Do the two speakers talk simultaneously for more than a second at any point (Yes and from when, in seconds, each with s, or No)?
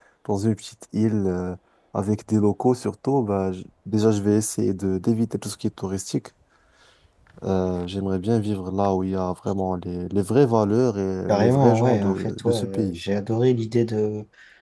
Yes, from 11.3 s